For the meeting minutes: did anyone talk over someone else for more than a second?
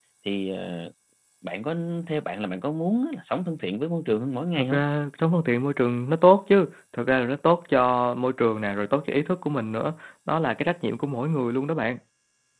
No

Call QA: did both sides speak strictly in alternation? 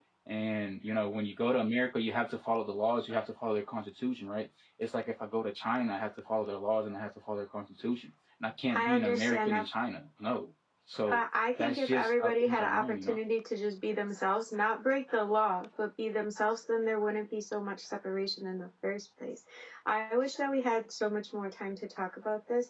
No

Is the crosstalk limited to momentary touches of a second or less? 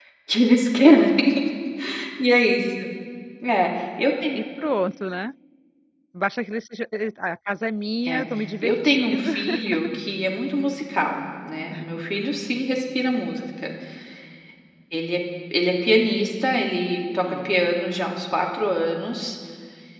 No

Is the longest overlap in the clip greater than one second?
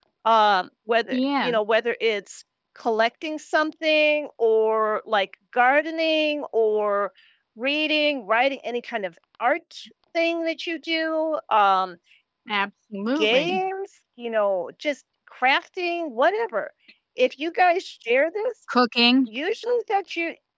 No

